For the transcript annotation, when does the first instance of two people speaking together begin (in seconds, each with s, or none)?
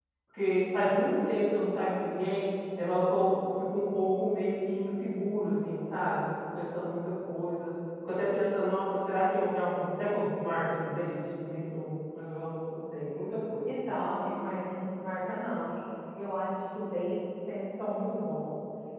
none